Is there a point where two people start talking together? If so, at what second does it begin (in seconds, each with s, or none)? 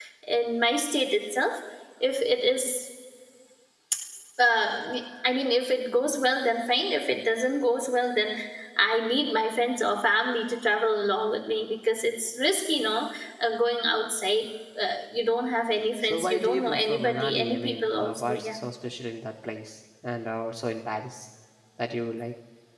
16.0 s